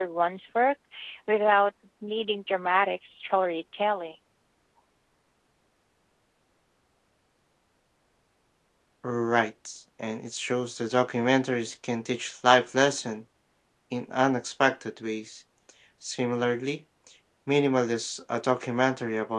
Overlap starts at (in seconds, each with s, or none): none